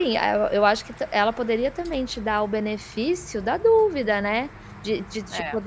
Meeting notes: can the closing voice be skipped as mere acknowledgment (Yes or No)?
Yes